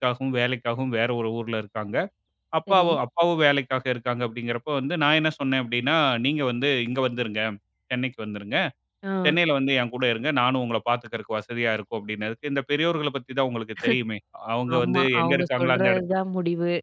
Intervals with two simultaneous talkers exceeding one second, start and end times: 14.8-16.0

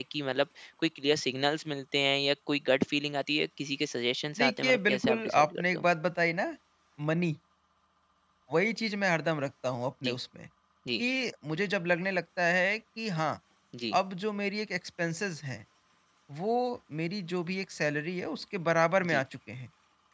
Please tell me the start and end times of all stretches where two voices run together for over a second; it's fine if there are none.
4.4-5.8

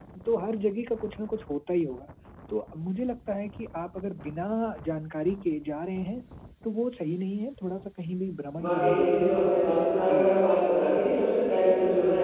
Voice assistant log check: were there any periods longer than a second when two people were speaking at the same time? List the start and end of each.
8.6-10.4

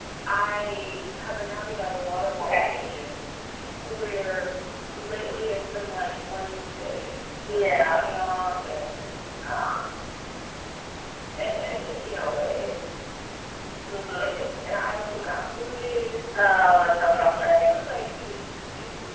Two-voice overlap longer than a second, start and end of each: 16.5-17.8

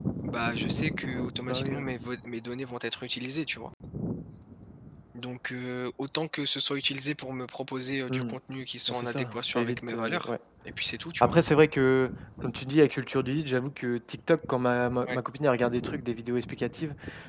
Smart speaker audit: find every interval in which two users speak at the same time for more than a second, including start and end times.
8.9-10.3

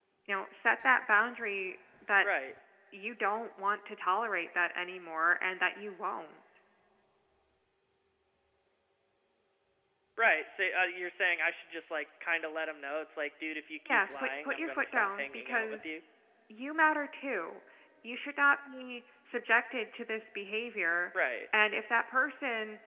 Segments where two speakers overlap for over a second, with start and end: 13.9-15.8

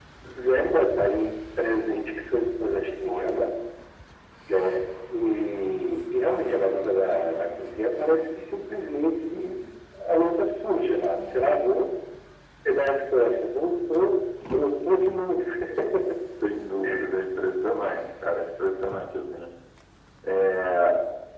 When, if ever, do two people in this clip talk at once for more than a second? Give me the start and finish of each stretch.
none

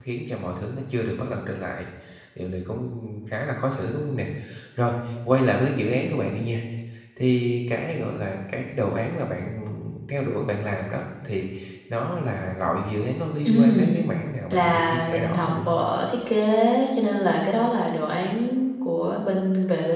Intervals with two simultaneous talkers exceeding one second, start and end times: 14.5-15.8

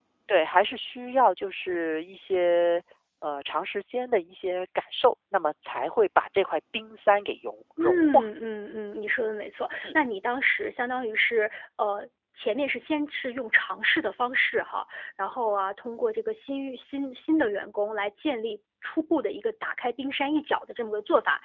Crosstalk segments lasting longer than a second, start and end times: none

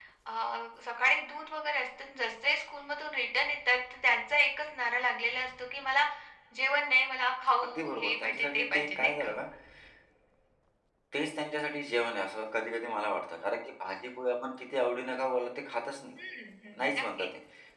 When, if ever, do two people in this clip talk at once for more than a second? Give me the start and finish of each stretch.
7.6-9.3

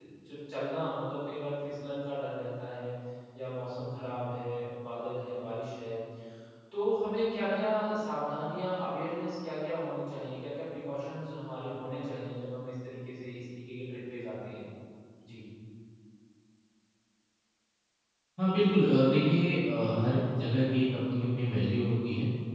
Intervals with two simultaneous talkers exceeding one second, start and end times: none

